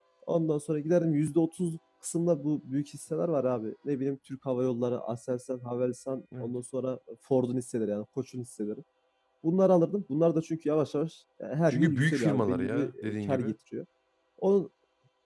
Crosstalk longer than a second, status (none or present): present